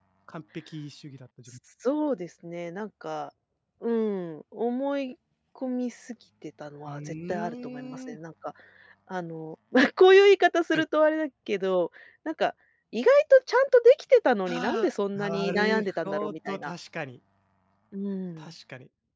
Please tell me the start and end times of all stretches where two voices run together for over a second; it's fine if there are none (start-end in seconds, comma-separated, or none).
6.9-8.2, 14.5-16.7